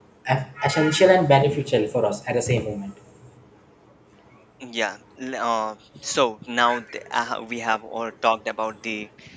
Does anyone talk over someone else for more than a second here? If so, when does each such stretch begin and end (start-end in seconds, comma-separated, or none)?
none